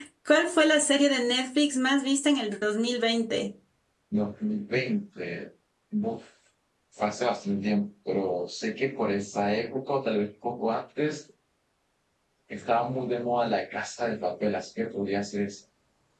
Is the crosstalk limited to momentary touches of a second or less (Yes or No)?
Yes